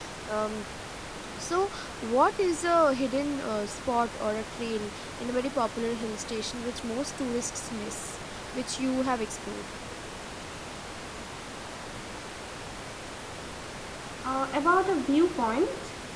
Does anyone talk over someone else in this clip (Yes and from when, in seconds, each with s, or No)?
No